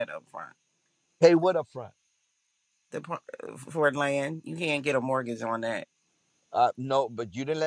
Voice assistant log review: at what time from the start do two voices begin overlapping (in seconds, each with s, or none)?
none